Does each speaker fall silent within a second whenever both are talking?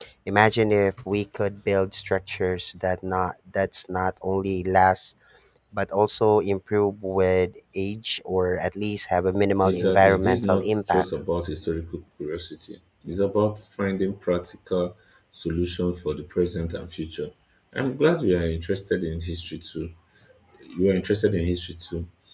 No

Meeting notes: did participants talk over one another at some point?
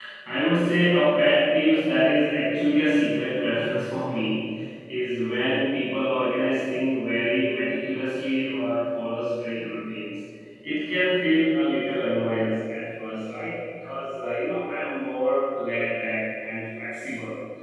No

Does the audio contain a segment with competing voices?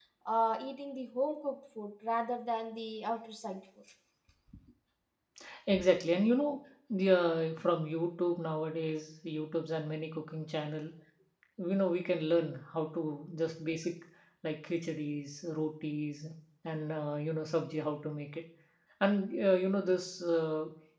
No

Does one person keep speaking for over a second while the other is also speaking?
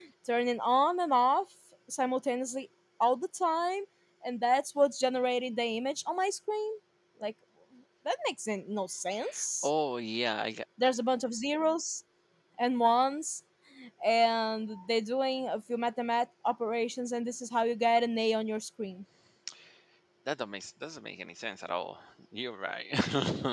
No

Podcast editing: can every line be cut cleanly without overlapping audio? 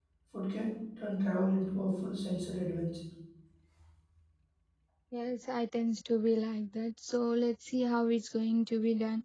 Yes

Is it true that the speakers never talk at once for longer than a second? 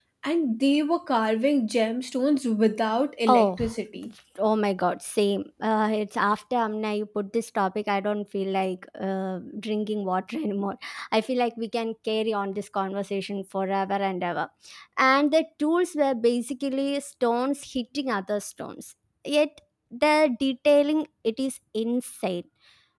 Yes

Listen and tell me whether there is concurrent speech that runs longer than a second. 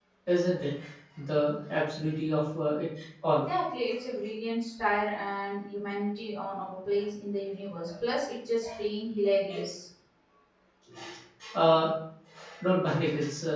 No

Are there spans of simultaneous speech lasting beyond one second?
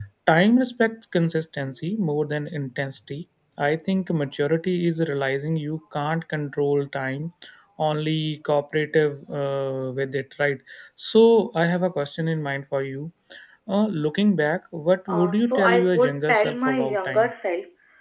Yes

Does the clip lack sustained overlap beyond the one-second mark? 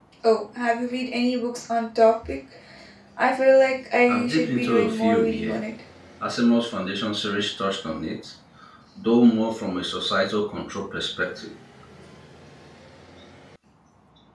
No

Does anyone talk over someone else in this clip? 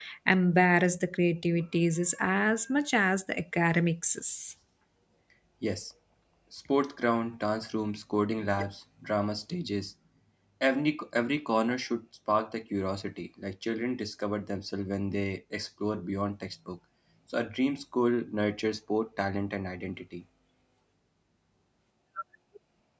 No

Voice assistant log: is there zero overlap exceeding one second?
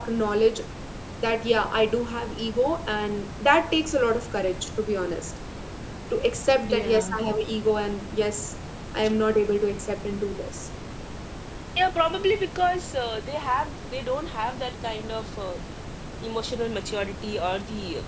Yes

